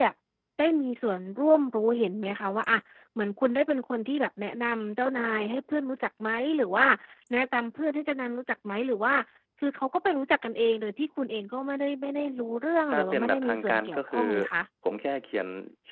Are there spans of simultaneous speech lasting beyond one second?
Yes, from 12.9 s

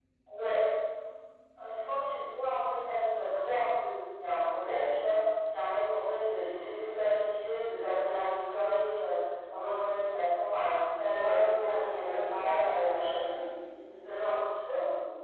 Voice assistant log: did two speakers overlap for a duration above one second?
Yes, from 11.2 s

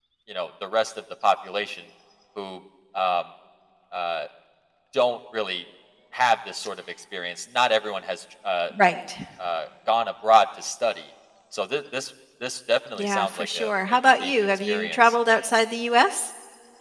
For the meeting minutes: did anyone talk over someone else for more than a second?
Yes, from 13.0 s

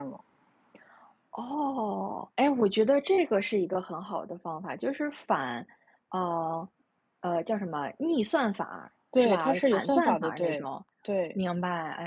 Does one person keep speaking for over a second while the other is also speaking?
Yes, from 9.1 s

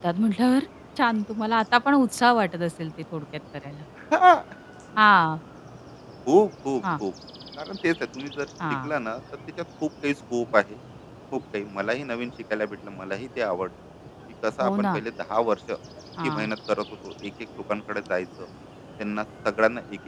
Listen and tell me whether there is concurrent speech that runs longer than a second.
No

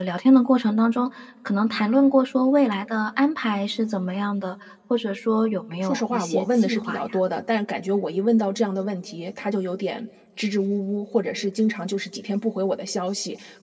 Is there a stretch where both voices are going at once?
Yes, from 5.8 s

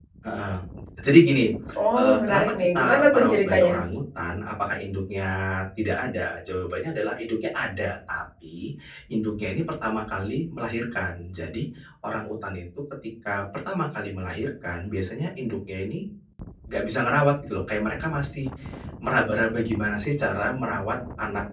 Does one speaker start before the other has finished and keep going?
Yes, from 1.9 s

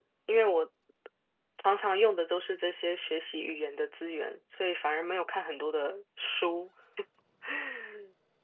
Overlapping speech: No

